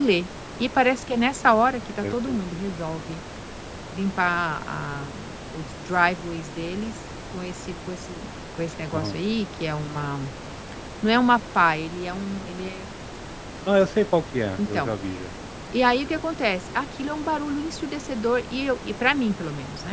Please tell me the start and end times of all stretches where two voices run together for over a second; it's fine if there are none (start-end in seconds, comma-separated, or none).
none